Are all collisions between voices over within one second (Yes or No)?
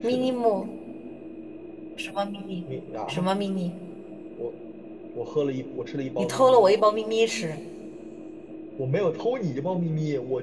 Yes